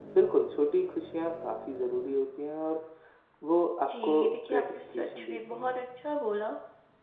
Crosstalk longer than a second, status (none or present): present